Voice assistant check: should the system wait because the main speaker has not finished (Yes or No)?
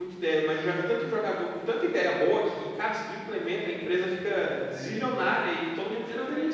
No